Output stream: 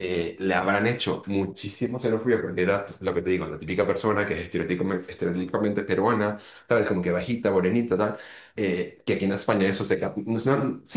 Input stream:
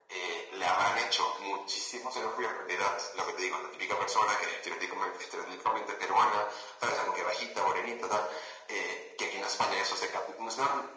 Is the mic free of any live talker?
Yes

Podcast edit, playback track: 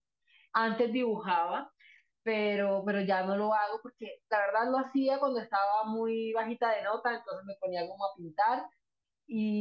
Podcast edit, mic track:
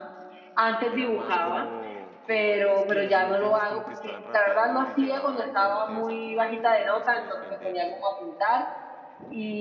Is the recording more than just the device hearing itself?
Yes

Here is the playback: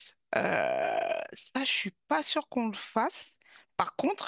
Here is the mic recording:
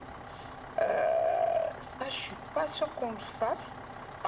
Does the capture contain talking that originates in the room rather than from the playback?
No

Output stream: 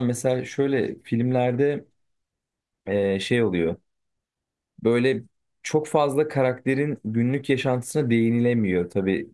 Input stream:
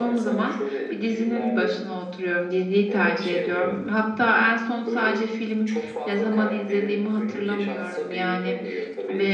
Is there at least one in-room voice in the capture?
Yes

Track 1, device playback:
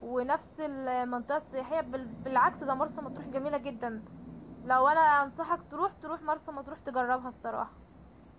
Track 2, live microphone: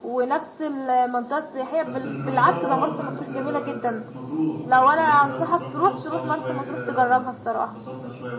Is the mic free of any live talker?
No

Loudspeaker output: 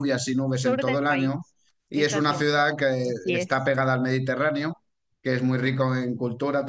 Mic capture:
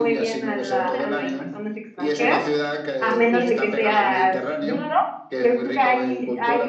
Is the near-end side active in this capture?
Yes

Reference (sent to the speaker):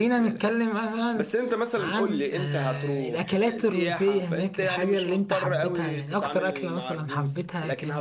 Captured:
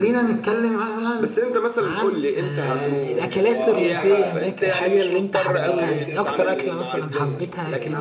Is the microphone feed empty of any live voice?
No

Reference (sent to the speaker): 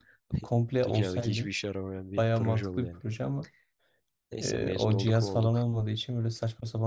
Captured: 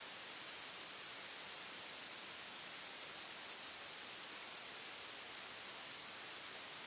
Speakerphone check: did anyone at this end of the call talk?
No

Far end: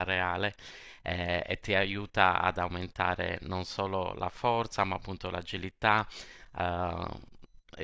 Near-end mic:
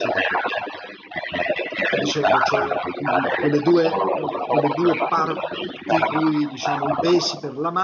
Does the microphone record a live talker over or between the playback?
Yes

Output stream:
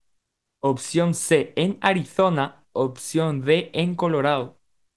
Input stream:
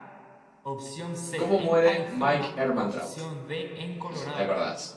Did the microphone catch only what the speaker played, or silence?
No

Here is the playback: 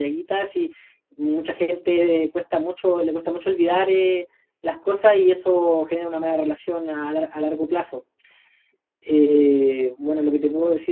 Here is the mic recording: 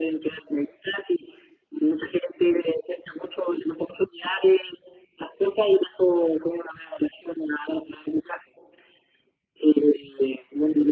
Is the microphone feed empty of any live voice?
Yes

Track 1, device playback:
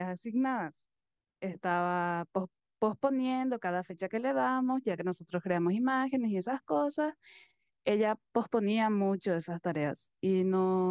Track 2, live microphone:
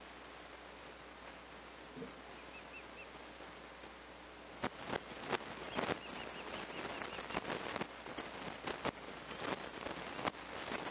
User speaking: No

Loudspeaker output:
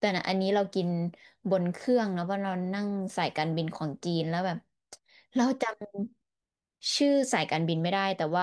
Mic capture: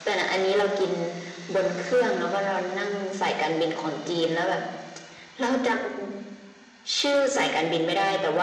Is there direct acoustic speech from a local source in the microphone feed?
No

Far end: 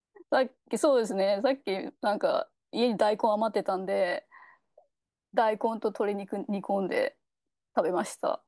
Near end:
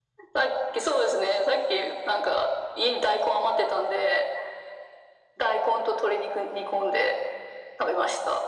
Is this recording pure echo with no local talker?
Yes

